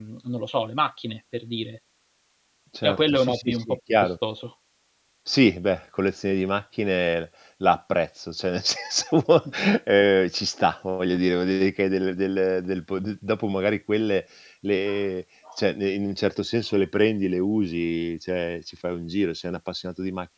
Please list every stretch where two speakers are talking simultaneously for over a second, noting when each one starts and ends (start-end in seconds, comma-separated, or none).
2.8-4.1